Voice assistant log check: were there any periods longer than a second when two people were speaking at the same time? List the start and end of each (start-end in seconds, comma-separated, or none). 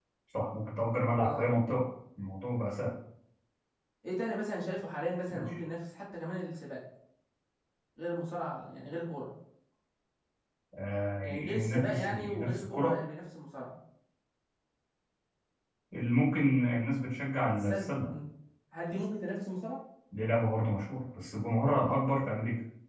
11.2-12.9